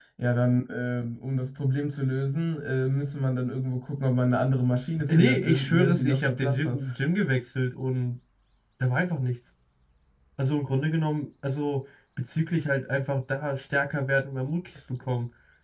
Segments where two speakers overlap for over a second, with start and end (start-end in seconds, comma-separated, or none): 5.1-6.8